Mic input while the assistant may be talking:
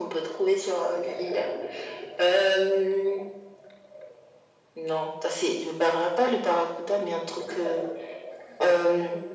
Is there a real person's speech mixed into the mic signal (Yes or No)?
No